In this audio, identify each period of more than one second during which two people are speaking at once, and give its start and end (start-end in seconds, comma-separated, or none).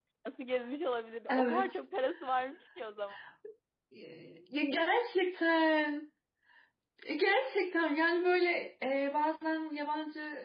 none